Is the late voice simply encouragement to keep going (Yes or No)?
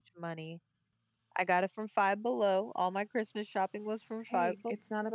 No